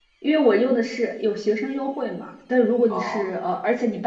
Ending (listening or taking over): listening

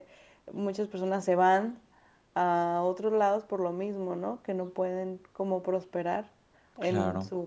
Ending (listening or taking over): taking over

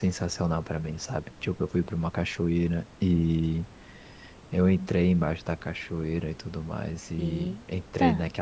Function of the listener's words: listening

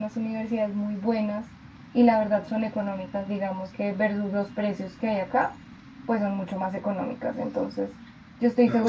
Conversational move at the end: listening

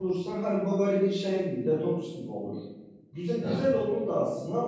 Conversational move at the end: listening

